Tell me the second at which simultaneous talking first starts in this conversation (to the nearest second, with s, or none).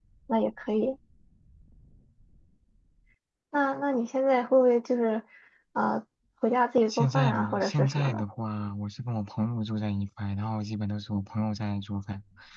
7 s